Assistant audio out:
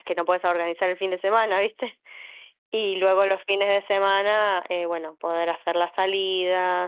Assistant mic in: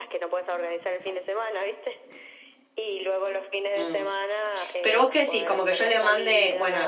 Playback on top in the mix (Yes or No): No